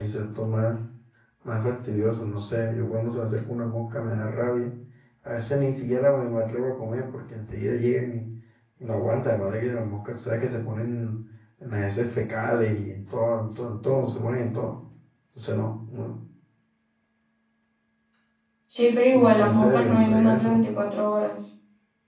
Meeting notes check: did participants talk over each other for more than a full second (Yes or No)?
Yes